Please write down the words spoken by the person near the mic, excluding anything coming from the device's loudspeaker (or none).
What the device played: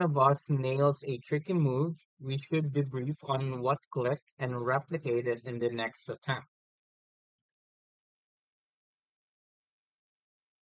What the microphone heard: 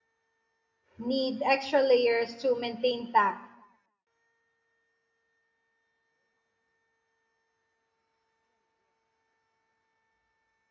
need extra layers to maintain tack.